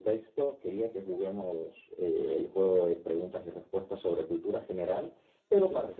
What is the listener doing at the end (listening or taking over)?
listening